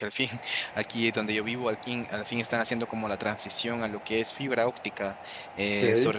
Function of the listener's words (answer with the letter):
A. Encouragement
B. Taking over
A